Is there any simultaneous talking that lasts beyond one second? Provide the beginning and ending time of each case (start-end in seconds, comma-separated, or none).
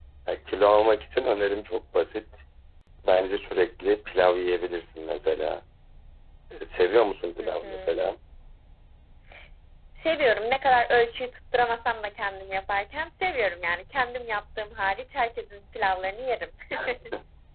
none